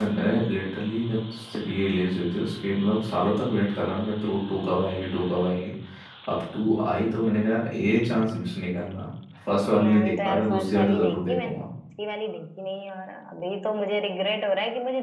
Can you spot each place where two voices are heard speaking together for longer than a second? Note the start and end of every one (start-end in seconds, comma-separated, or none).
9.7-11.5